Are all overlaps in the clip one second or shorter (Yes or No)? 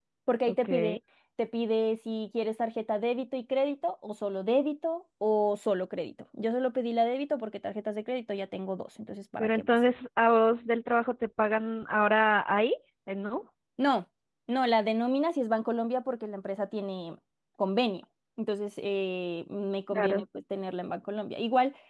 Yes